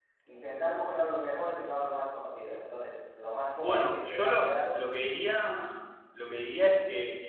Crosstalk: present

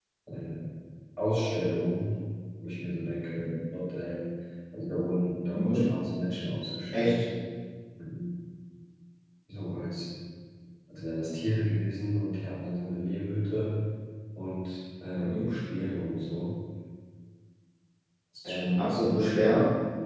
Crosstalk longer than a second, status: present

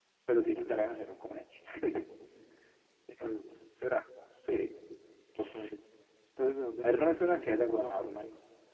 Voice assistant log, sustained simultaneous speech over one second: present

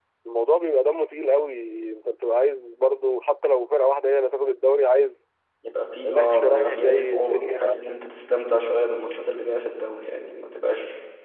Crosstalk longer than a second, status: present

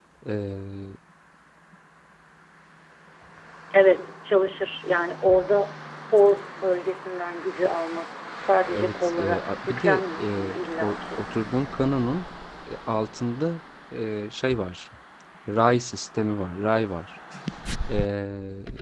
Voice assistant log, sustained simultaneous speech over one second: present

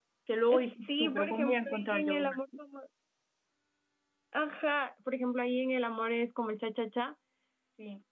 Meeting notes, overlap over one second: present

